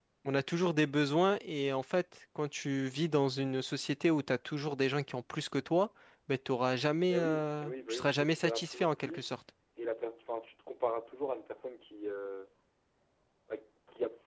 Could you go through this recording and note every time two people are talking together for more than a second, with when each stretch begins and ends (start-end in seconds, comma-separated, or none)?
7.1-9.3